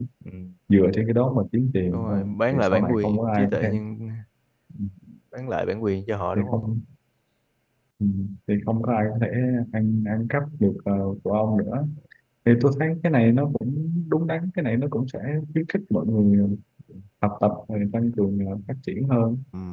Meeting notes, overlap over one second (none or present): present